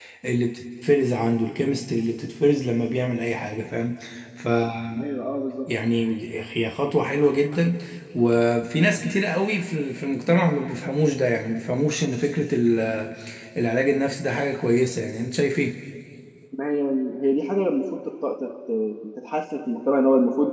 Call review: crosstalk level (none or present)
none